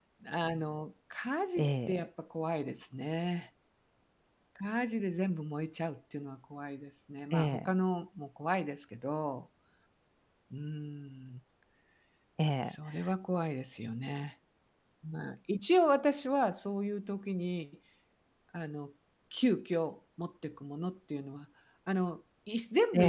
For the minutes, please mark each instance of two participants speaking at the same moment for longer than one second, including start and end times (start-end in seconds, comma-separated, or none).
none